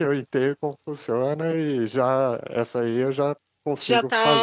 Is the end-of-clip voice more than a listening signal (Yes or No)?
Yes